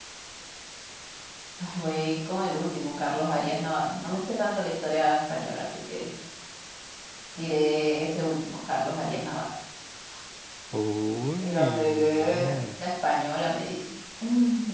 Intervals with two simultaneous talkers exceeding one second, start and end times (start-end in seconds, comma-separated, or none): 11.4-12.8